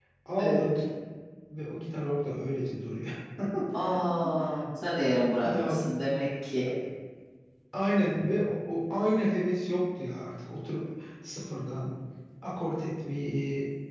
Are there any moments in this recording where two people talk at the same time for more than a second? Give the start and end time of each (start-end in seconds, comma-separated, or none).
none